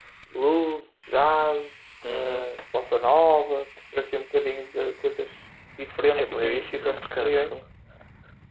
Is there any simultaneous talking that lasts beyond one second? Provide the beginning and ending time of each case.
6.2-7.6

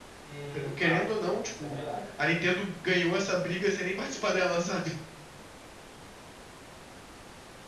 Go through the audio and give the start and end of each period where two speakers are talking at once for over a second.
0.5-1.8

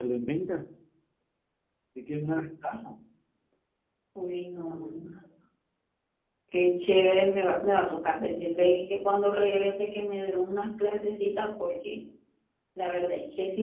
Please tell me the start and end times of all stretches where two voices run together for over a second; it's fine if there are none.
none

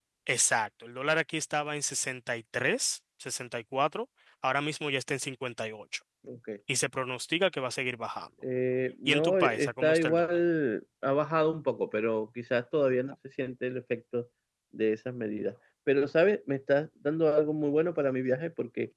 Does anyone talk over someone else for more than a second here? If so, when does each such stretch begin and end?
9.1-10.4

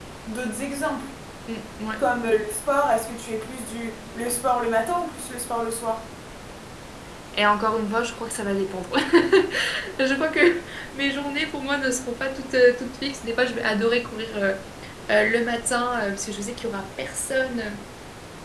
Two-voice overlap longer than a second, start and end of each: none

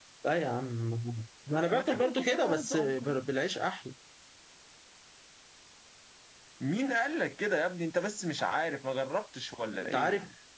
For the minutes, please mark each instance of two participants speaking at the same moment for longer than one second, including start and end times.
1.7-3.2

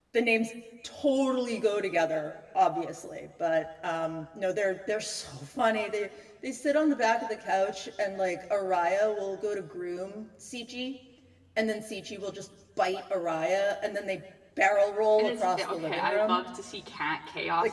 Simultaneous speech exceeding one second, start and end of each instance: 15.2-16.4

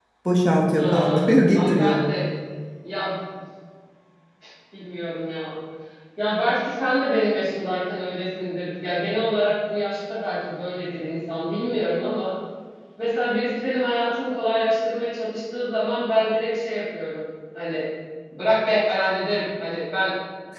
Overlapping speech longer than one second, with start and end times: 0.7-2.0

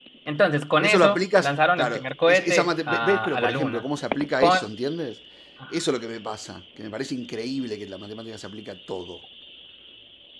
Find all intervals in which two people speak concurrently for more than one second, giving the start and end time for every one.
0.8-3.8

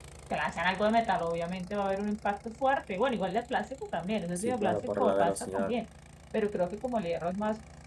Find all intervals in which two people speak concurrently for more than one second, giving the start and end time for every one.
4.3-5.8

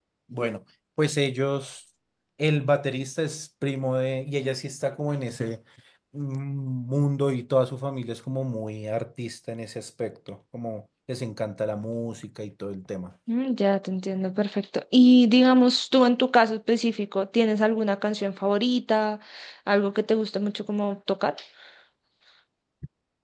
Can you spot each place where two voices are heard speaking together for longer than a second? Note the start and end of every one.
none

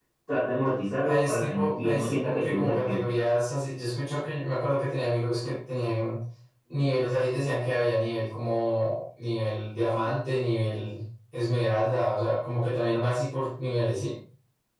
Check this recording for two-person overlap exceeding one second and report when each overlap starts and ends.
1.0-3.0

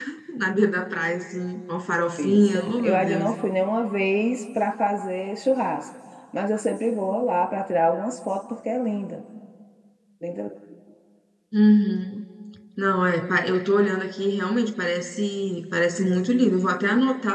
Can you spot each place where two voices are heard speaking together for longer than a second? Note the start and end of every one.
1.9-3.3

